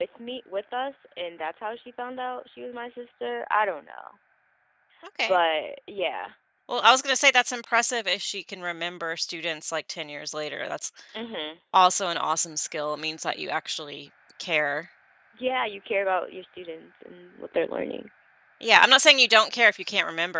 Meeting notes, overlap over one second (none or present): none